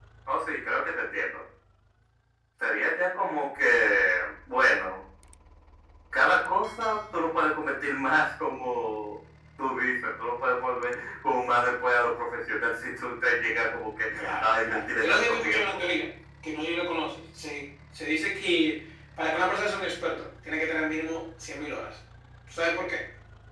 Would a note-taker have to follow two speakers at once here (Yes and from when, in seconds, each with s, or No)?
Yes, from 14.2 s